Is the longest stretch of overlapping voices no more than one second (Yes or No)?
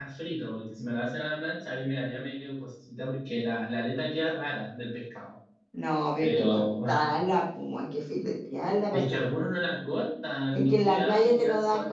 No